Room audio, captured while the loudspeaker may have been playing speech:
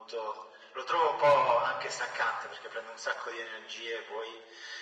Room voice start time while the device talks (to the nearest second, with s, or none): none